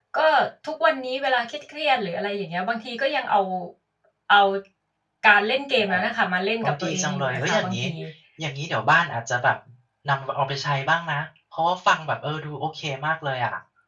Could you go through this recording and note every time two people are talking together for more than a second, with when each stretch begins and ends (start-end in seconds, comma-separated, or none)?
6.6-7.8